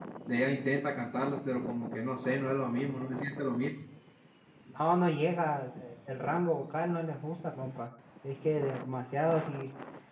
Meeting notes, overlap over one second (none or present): none